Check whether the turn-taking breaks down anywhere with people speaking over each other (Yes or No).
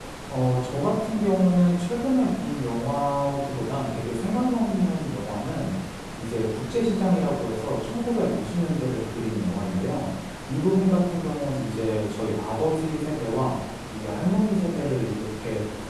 No